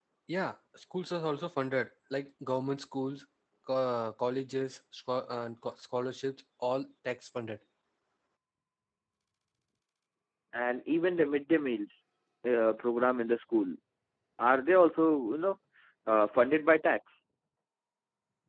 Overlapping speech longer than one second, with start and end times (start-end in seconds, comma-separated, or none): none